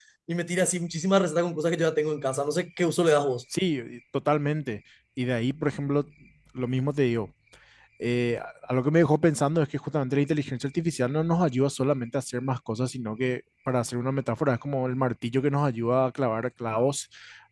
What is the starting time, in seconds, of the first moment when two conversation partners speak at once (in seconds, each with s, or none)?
none